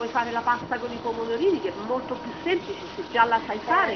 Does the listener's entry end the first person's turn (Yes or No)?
Yes